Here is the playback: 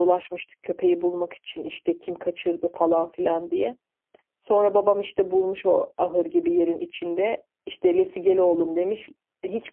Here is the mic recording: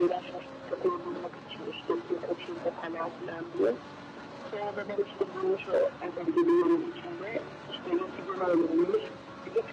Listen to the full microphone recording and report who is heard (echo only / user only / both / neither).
echo only